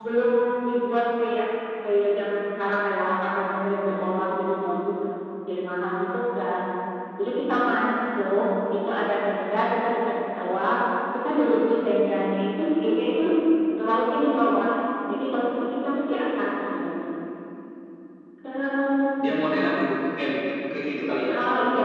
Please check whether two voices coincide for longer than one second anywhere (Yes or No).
No